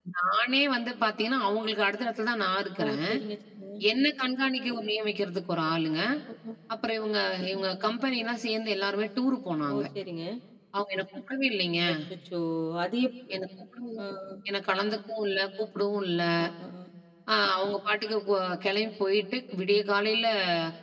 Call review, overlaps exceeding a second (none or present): none